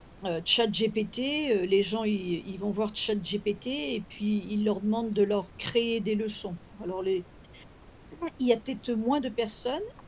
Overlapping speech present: No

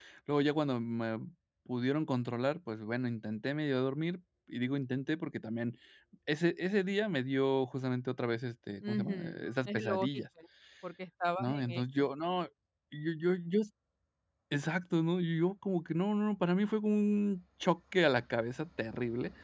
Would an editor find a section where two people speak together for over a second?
Yes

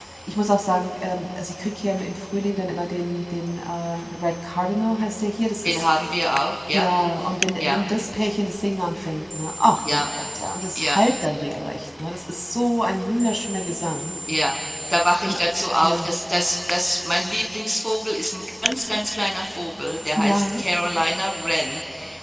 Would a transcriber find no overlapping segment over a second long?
Yes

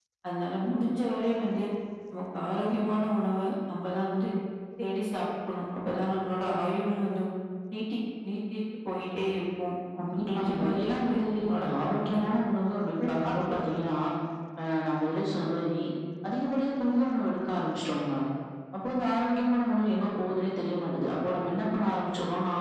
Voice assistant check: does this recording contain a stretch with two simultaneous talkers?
Yes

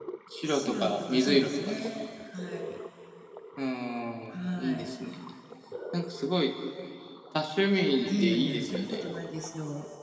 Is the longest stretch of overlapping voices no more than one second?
No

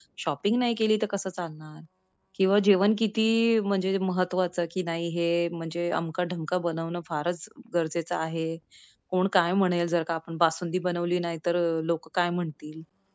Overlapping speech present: No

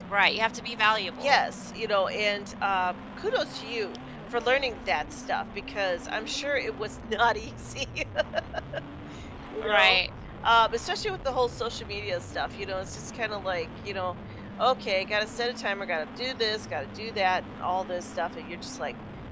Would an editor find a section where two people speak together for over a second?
No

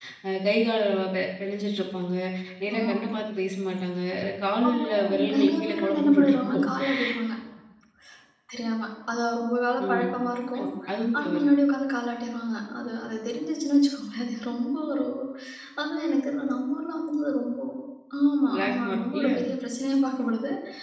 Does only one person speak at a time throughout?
No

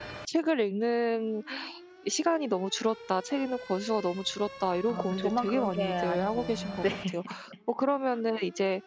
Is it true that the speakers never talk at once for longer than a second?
No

